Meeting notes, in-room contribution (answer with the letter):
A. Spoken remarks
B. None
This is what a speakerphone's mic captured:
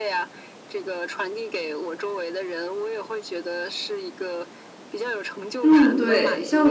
A